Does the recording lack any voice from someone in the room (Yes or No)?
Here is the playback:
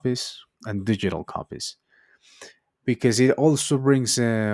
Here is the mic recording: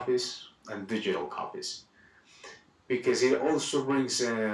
Yes